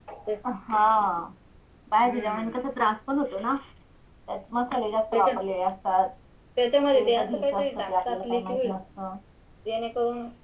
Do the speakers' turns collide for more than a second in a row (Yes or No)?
Yes